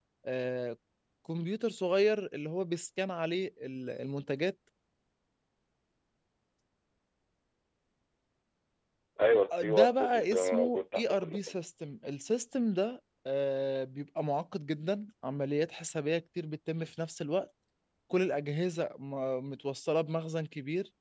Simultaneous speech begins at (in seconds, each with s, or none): 9.6 s